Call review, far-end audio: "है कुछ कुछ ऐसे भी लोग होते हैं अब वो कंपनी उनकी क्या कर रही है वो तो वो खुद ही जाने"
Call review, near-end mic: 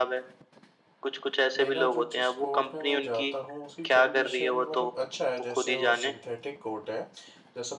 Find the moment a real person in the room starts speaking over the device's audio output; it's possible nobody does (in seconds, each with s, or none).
1.6 s